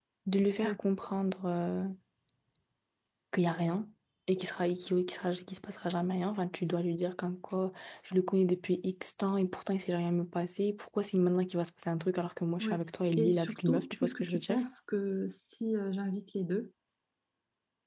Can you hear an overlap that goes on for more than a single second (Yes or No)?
Yes